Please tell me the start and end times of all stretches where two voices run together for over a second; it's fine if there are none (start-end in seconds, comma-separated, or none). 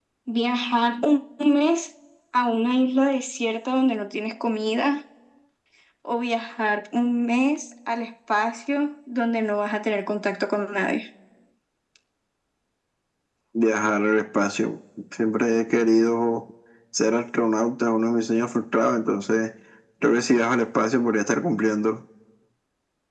none